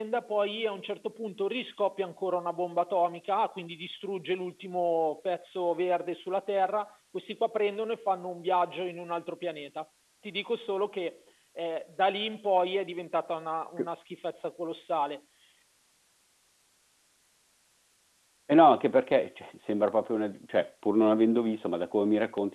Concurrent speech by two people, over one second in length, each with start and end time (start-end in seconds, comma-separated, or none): none